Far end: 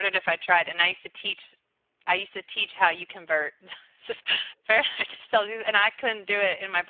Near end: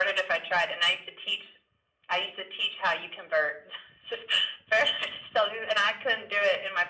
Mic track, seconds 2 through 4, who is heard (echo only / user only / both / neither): echo only